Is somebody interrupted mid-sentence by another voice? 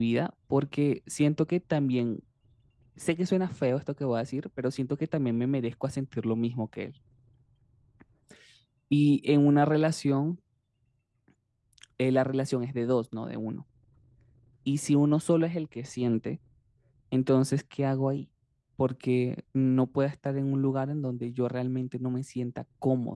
No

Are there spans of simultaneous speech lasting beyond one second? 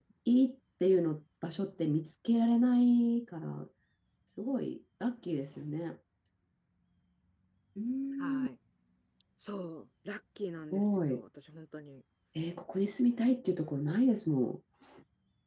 No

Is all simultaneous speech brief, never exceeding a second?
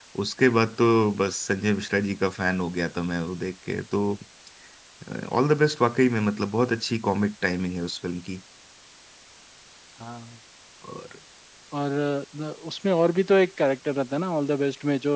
Yes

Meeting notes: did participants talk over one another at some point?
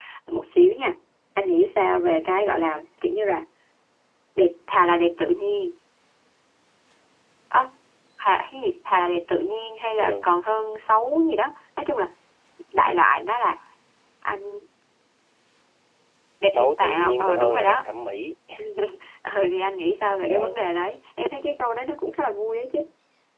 Yes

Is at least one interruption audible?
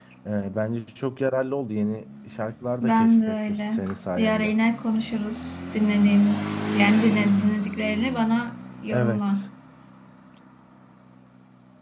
Yes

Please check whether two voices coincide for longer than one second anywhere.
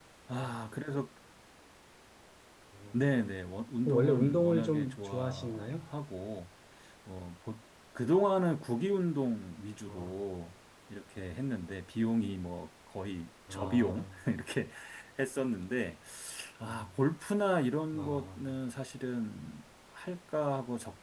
Yes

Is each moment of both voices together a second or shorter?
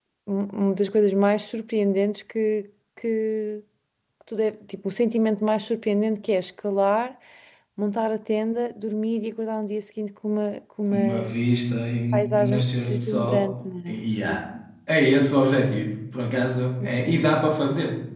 No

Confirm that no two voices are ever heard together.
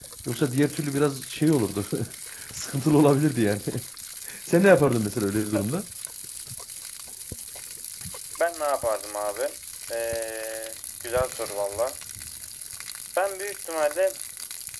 Yes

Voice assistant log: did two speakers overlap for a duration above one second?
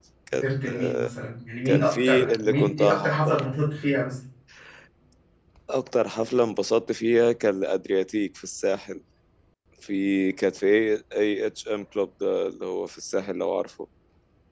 Yes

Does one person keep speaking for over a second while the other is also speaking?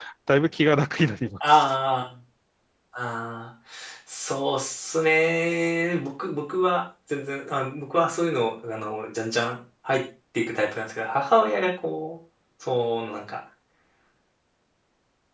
No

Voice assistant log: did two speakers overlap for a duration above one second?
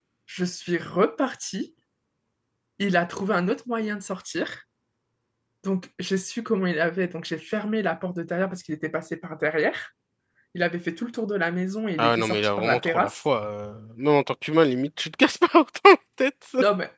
Yes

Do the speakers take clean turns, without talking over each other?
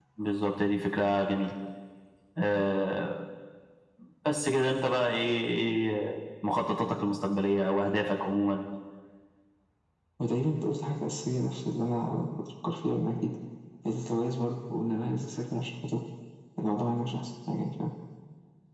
Yes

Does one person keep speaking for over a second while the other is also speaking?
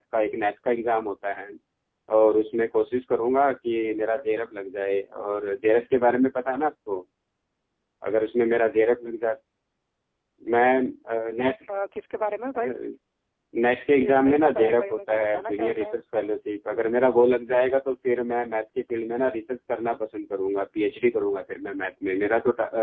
Yes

